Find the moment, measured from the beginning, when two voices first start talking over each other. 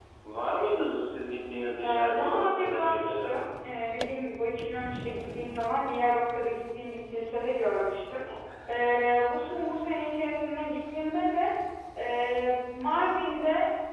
1.8 s

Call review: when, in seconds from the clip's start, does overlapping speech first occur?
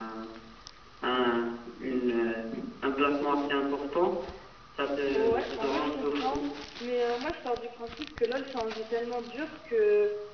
5.1 s

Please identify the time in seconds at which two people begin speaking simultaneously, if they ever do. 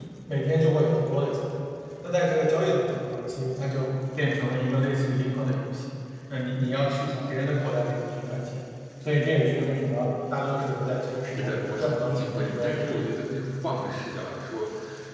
11.4 s

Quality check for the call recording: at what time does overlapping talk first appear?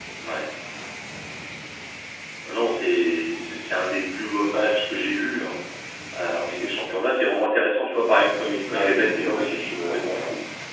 8.7 s

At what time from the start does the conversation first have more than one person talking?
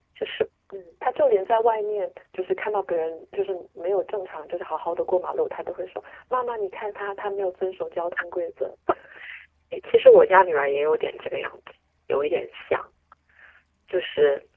none

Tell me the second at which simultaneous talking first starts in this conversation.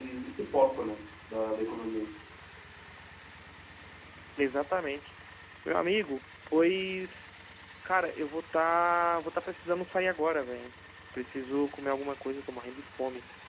none

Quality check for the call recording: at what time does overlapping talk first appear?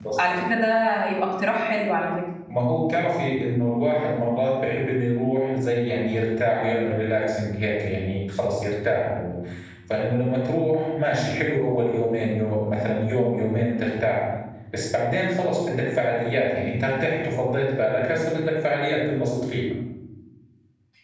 none

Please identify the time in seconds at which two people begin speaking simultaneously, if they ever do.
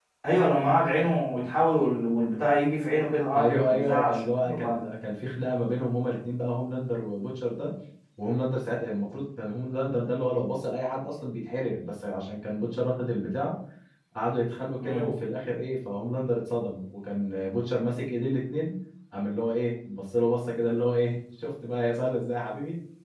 3.3 s

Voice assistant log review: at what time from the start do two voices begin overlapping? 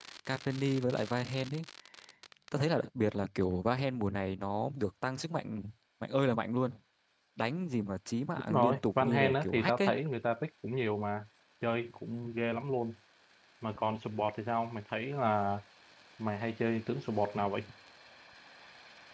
8.5 s

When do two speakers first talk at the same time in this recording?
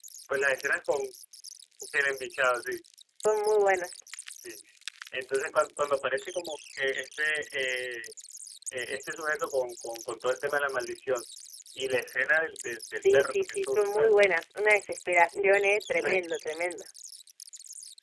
12.9 s

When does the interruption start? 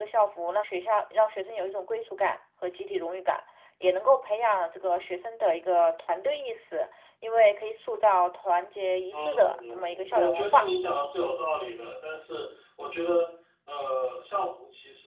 9.1 s

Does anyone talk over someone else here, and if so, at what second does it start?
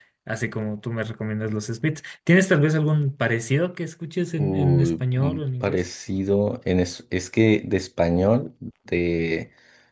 4.4 s

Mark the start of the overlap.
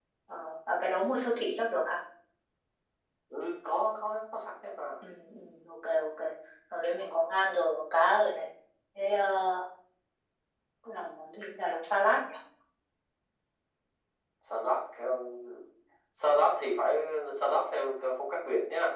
none

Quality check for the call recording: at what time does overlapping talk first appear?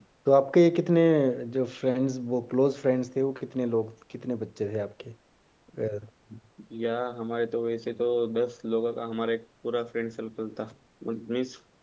none

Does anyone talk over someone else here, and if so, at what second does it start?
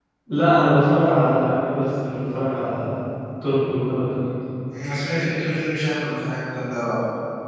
none

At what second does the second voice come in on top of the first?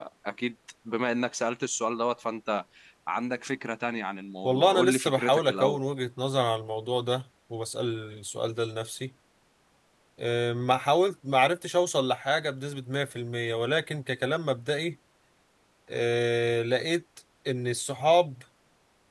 4.4 s

